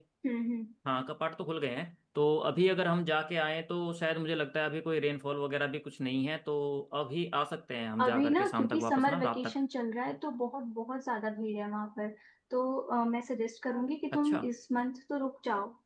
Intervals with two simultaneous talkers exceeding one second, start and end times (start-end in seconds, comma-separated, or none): 8.0-9.6